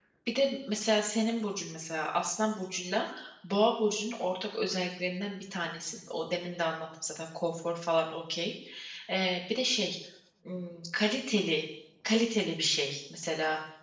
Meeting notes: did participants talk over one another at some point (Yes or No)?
No